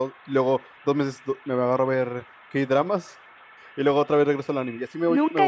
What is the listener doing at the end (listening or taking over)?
taking over